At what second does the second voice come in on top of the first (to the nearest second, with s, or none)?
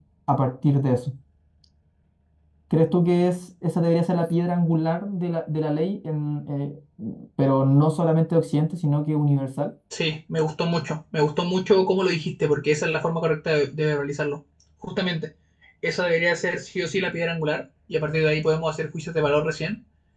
none